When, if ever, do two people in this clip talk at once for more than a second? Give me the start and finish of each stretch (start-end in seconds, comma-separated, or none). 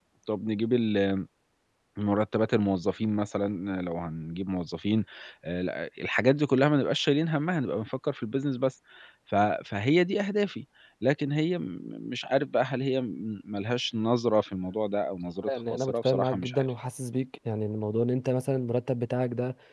15.4-16.7